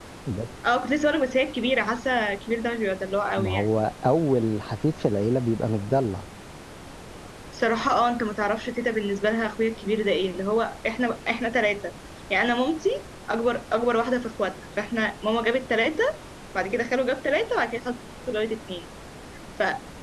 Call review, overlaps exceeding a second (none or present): none